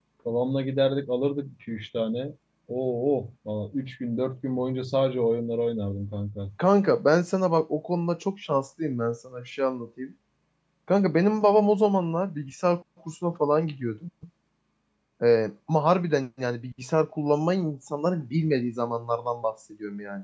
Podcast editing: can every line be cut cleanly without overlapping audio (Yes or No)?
Yes